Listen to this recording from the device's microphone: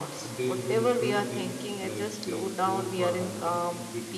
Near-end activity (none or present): present